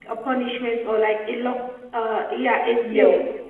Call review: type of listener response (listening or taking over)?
taking over